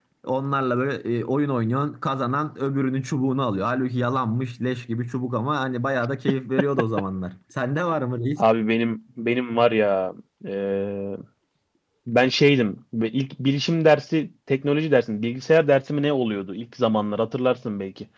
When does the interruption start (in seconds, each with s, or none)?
none